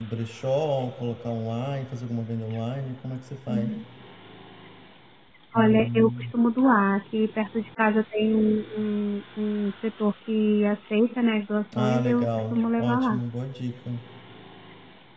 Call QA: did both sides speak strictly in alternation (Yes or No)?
No